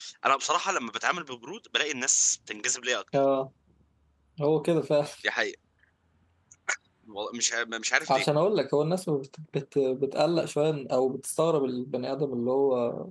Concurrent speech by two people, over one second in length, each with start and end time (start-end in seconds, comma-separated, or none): none